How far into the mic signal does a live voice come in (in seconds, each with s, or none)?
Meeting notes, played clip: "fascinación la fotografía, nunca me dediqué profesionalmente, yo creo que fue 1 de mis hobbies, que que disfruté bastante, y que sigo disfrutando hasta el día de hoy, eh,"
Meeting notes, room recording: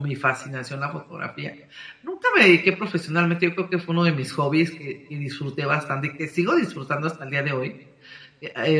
none